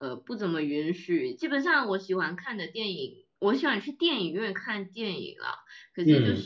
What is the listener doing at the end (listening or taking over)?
listening